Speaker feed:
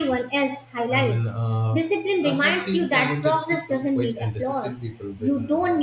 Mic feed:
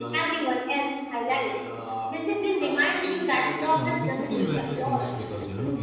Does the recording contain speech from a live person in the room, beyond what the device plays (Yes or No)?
Yes